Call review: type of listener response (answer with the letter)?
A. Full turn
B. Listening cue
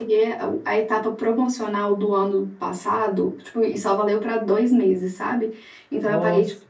B